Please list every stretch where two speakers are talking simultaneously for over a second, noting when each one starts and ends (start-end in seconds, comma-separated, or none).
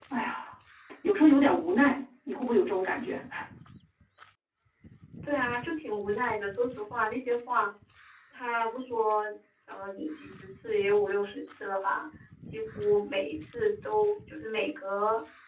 none